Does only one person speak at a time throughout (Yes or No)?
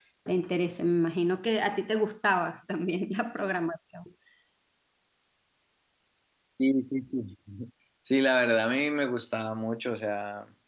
Yes